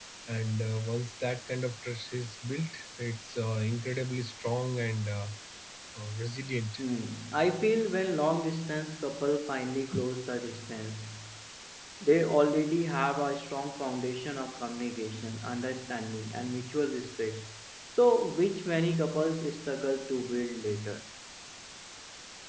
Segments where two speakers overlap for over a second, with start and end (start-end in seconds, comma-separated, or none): none